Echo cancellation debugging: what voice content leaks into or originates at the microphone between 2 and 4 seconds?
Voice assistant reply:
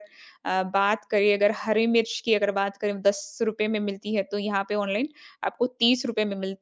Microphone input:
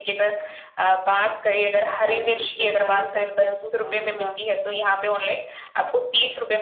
both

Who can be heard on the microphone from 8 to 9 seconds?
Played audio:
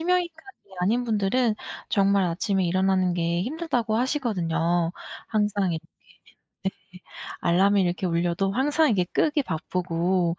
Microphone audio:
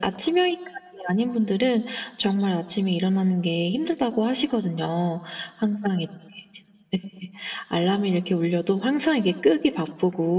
echo only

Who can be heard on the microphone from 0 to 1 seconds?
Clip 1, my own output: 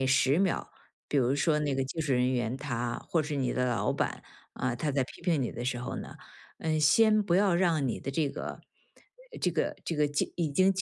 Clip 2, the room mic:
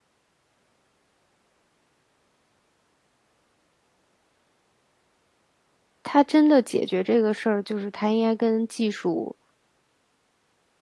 neither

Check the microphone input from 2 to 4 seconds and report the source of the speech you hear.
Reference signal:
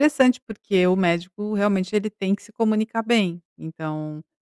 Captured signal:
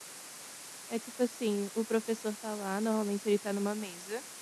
user only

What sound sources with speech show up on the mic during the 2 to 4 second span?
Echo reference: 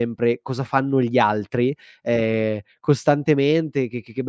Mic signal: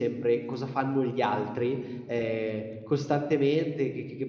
echo only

